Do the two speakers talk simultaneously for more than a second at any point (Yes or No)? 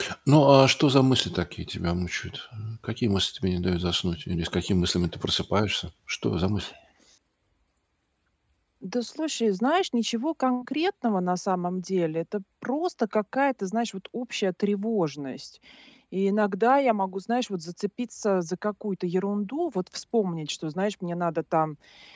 No